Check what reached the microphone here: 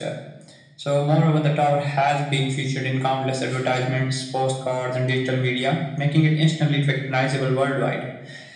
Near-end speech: none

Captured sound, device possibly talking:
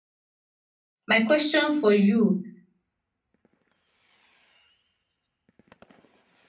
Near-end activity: present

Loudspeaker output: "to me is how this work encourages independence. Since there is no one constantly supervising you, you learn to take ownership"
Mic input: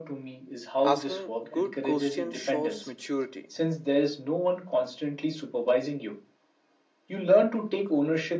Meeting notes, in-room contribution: present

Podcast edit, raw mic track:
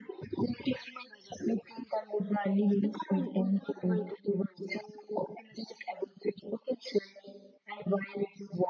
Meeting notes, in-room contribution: none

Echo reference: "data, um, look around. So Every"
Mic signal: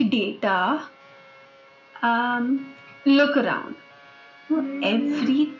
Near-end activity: present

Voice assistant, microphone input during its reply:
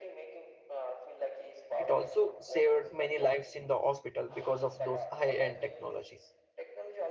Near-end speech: present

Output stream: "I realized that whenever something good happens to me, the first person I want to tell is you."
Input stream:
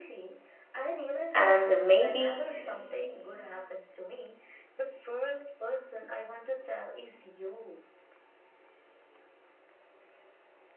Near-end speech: present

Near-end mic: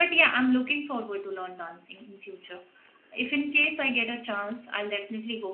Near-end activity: present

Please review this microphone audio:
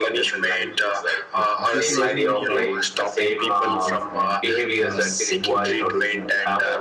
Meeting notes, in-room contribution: present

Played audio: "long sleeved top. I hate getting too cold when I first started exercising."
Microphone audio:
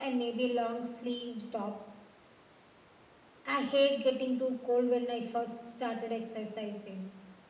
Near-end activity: none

